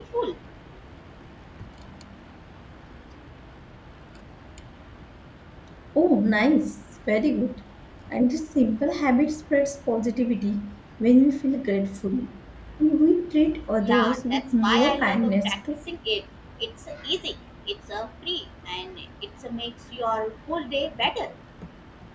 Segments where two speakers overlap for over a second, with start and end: 13.8-15.6

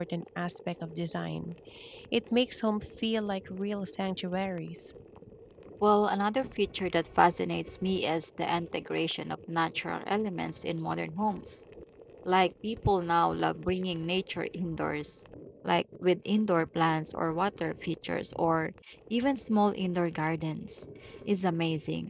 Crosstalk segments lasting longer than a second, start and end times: none

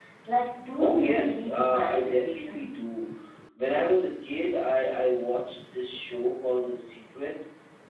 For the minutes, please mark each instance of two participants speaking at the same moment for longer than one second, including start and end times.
0.8-2.8

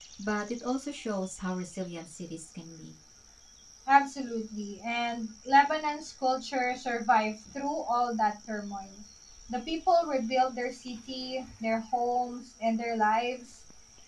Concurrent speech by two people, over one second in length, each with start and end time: none

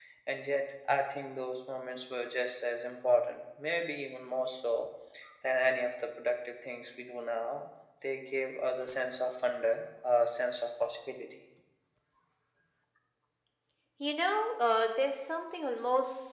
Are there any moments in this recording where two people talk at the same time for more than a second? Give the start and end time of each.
none

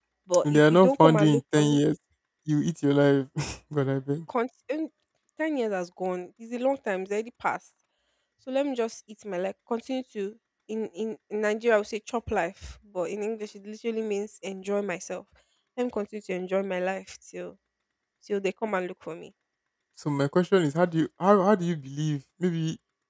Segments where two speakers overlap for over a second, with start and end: 0.5-1.8

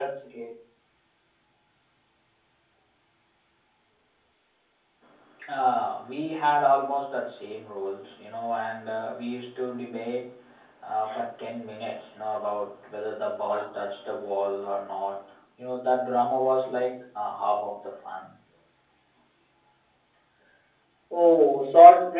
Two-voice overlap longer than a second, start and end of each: none

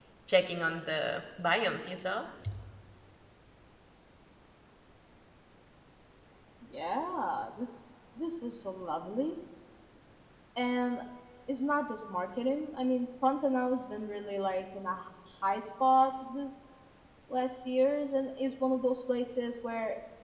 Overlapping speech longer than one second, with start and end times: none

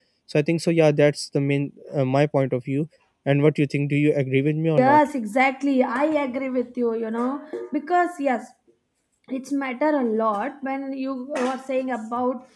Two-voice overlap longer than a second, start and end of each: none

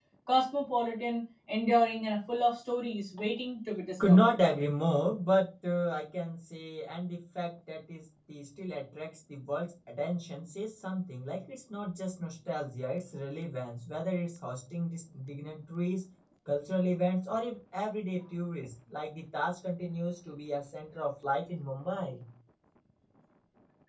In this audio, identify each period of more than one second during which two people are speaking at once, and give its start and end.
none

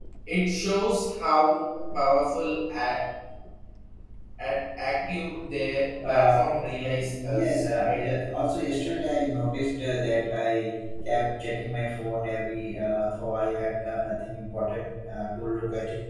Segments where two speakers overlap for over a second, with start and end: 6.8-8.0

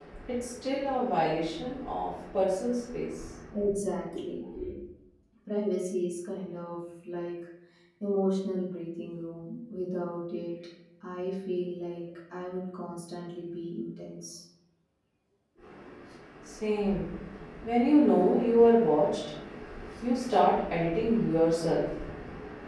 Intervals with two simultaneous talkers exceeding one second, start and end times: none

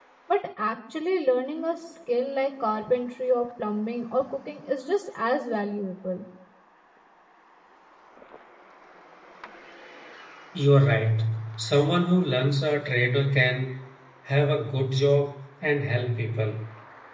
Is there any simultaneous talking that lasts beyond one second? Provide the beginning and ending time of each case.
none

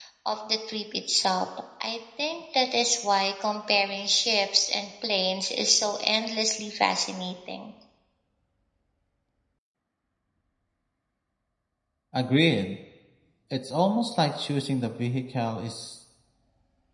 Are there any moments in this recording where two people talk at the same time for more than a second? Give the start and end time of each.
none

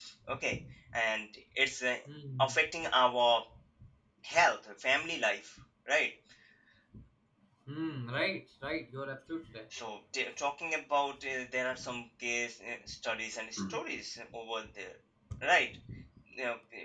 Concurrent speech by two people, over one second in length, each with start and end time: none

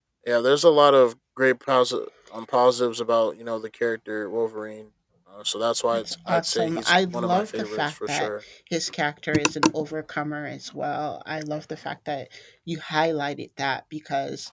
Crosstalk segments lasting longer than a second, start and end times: 5.9-8.3

